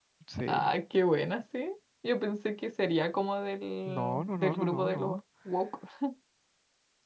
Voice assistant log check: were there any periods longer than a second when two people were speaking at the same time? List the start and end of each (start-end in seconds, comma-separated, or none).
3.9-5.2